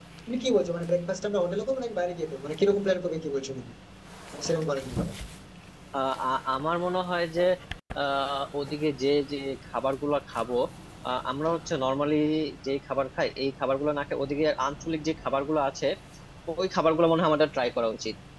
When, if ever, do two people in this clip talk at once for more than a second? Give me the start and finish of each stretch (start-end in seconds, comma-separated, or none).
none